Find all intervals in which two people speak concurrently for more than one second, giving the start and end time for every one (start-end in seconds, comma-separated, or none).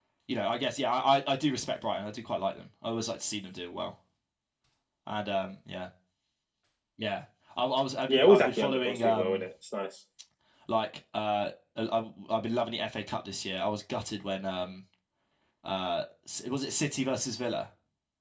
8.1-9.4